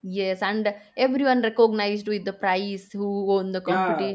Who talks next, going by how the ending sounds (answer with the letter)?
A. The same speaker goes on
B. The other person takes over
B